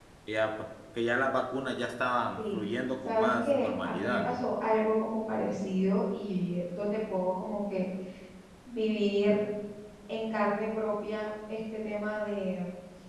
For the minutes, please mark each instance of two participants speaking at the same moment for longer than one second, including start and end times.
3.0-4.4

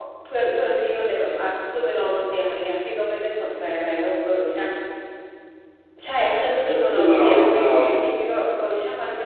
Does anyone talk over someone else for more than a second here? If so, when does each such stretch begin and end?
6.7-7.9

